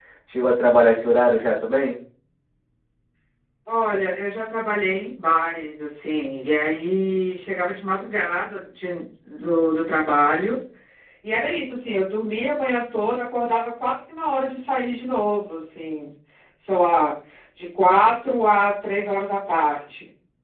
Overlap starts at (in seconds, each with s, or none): none